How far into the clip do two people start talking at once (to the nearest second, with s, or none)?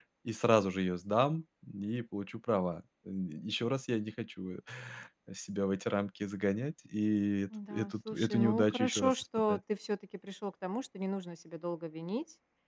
8 s